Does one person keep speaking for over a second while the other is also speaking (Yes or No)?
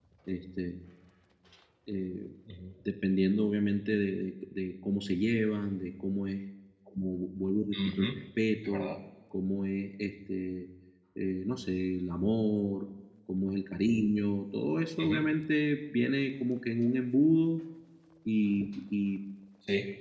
No